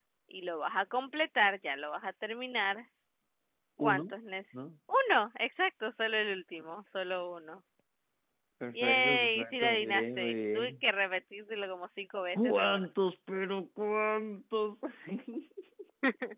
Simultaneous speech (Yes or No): Yes